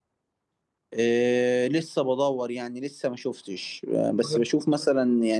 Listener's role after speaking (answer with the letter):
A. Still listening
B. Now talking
A